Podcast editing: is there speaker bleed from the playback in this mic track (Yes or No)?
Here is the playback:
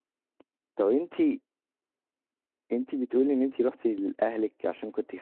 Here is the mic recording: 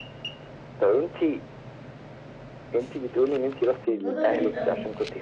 Yes